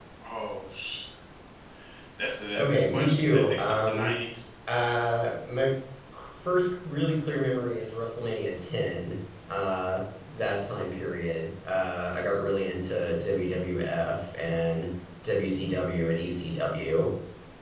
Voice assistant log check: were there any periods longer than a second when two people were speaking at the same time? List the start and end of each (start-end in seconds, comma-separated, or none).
2.6-4.1